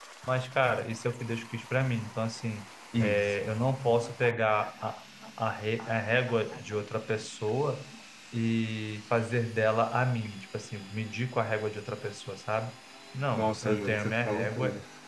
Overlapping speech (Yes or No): Yes